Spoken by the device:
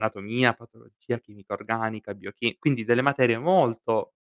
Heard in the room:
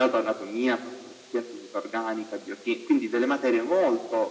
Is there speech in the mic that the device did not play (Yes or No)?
No